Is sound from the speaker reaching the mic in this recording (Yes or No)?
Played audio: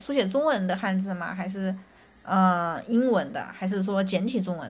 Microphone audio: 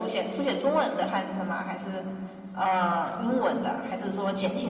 Yes